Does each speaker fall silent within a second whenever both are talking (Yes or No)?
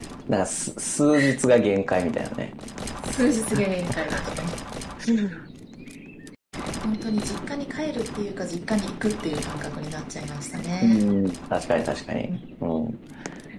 Yes